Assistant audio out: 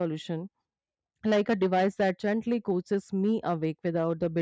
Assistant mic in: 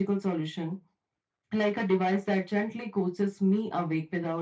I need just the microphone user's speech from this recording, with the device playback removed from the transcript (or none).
none